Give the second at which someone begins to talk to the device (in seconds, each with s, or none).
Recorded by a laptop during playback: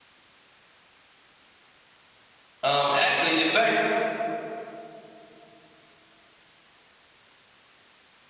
2.6 s